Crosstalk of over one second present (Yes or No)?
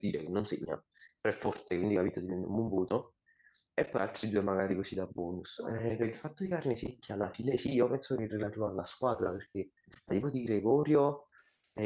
No